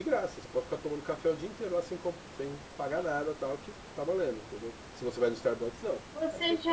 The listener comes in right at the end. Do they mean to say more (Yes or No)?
Yes